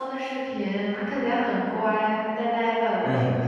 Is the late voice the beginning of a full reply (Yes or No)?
Yes